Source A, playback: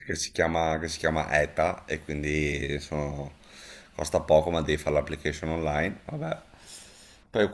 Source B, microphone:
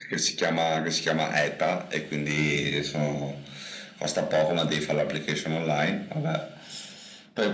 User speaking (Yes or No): No